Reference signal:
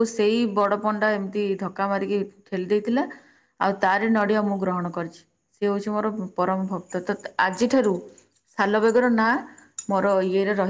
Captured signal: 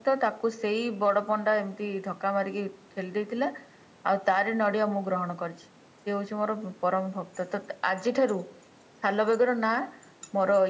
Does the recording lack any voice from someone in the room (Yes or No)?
Yes